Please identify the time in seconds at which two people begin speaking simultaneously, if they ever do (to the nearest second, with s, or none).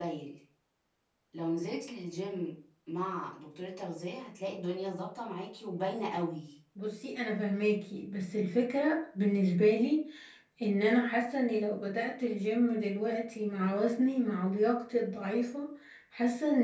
none